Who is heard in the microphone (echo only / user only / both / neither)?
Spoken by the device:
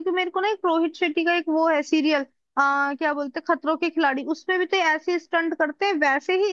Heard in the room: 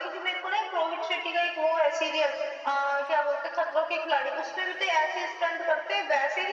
echo only